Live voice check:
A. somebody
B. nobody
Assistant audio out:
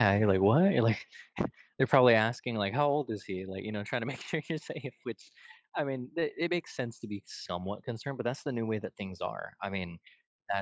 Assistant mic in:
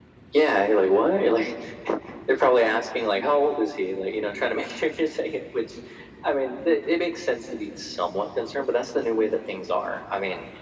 B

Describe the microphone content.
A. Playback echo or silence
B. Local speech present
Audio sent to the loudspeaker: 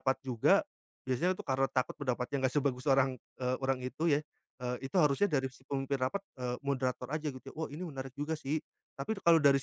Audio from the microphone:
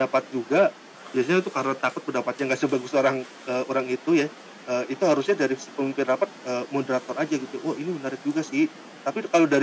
A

